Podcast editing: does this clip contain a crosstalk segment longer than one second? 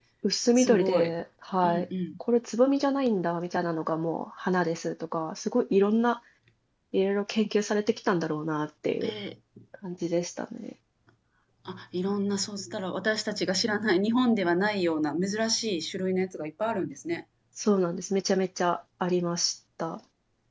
No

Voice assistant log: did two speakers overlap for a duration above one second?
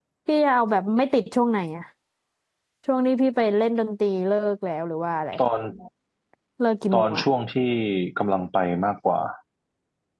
No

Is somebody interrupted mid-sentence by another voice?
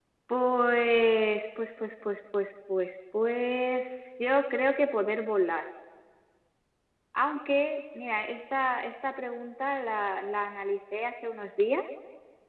No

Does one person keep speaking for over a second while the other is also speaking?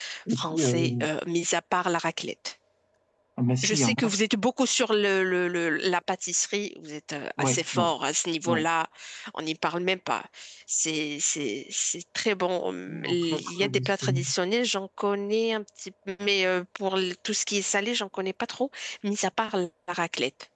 Yes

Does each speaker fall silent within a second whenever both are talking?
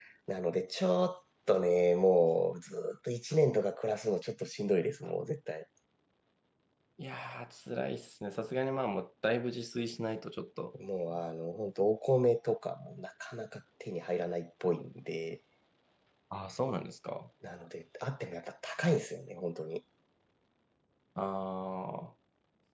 Yes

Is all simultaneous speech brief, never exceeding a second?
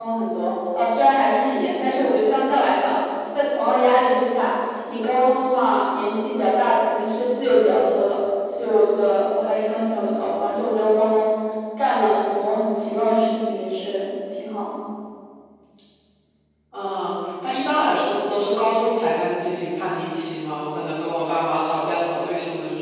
Yes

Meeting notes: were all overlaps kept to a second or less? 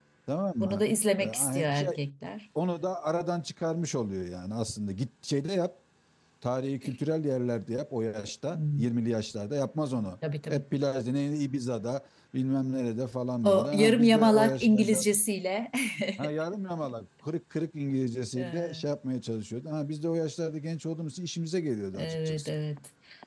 No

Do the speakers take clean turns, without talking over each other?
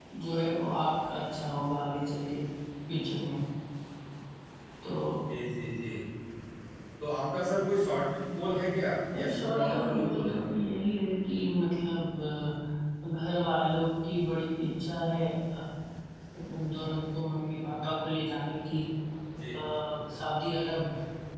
No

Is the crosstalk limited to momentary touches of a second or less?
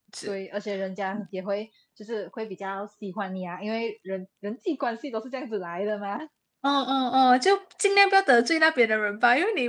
Yes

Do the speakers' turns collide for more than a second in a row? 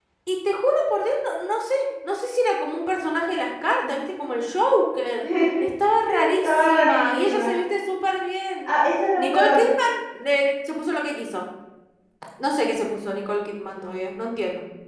Yes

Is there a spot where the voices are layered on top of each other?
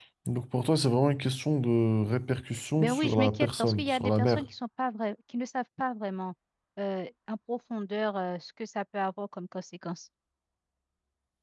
Yes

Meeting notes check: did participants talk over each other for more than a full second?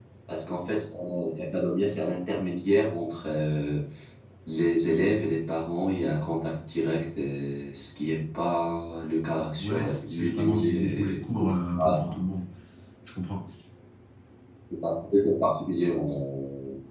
Yes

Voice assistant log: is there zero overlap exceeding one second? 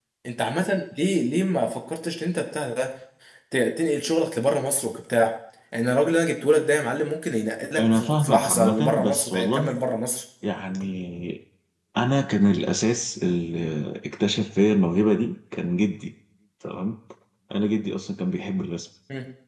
No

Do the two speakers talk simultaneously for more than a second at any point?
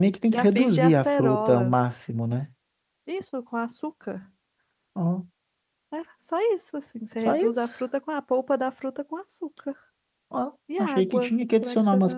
Yes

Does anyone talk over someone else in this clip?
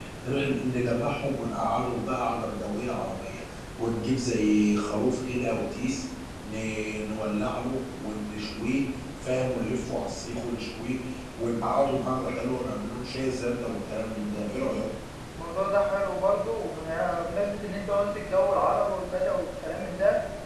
No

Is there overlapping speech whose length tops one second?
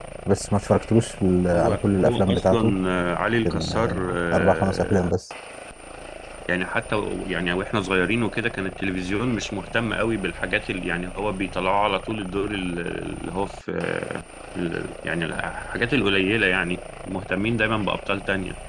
Yes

